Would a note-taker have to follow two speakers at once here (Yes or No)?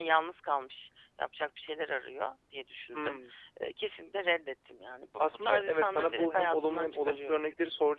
Yes